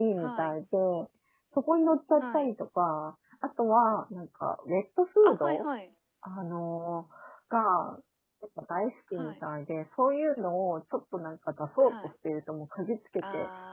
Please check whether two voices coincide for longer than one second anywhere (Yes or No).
No